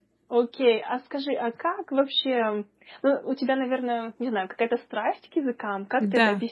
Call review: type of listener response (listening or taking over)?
taking over